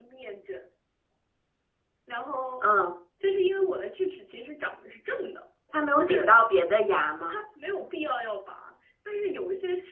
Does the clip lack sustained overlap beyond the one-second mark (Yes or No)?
Yes